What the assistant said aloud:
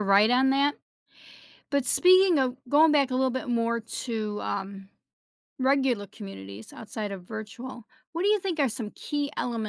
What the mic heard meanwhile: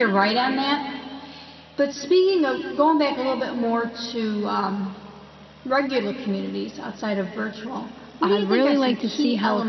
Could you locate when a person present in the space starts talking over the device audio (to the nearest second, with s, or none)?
8 s